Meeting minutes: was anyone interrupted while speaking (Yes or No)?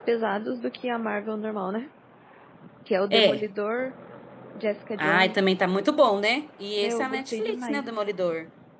Yes